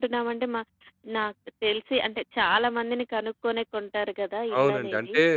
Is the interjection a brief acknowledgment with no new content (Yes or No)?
No